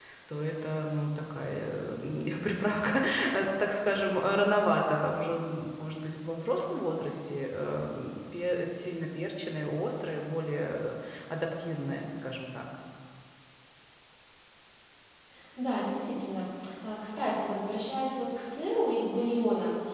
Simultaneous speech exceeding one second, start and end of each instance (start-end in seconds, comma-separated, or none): none